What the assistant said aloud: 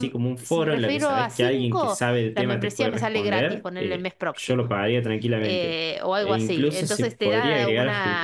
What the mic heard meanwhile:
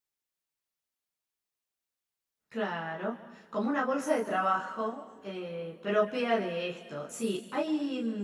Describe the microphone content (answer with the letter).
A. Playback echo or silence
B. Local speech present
B